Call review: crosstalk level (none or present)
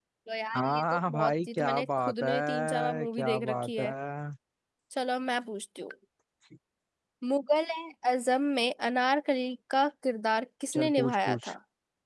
present